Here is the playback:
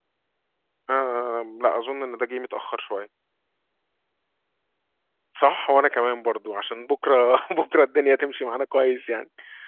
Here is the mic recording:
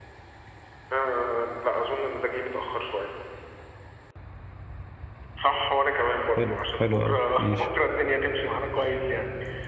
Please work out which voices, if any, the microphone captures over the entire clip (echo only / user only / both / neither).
both